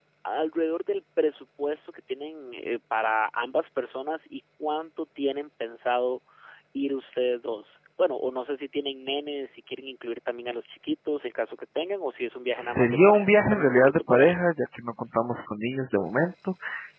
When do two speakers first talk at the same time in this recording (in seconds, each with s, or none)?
12.6 s